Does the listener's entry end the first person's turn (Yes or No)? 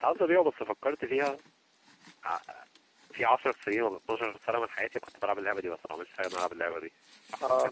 Yes